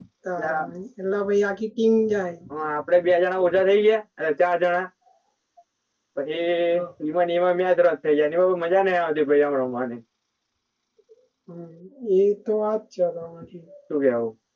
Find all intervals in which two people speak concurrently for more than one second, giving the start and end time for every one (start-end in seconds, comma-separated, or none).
none